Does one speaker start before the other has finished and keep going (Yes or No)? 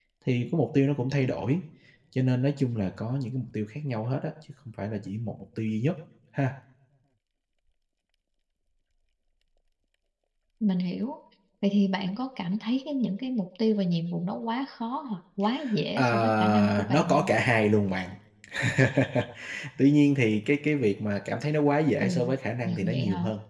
Yes